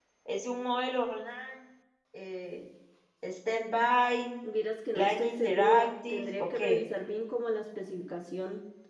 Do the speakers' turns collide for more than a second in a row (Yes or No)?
Yes